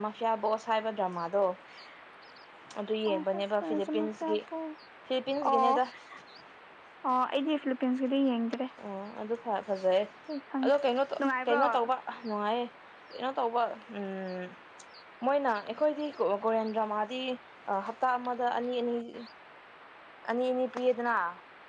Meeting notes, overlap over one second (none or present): present